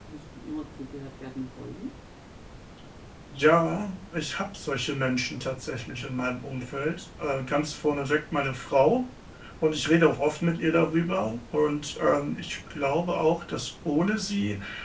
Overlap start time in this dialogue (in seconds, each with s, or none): none